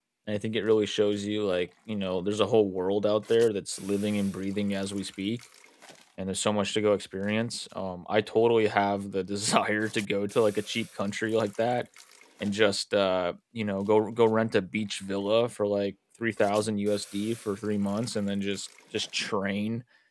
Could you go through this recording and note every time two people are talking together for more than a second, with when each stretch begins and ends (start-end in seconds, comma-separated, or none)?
none